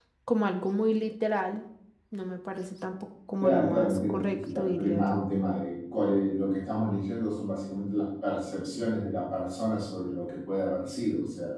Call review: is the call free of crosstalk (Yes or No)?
No